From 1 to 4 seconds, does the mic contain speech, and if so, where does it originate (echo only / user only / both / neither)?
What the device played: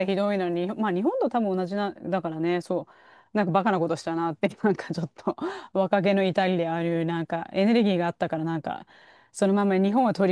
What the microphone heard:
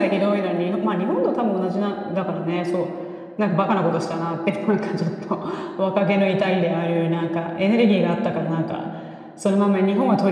echo only